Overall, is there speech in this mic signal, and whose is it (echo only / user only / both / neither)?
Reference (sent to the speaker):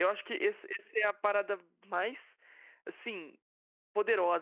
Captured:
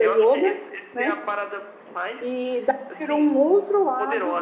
both